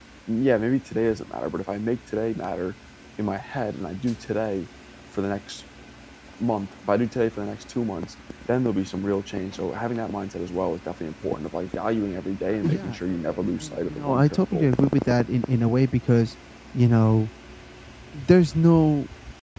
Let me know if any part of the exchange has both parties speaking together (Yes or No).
Yes